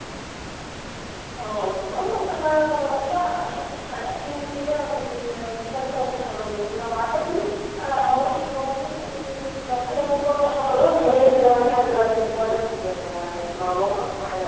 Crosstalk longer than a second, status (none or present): present